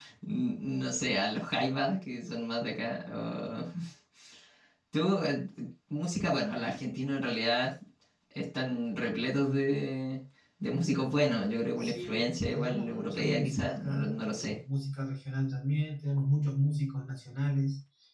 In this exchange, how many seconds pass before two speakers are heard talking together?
11.8 s

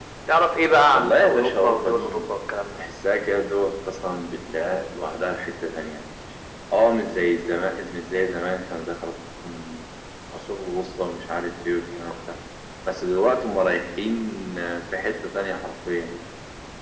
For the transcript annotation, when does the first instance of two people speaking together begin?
0.9 s

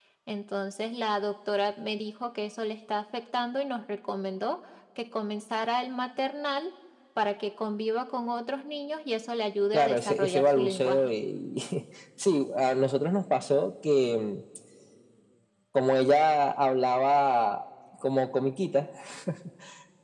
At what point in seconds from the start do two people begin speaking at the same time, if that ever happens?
9.7 s

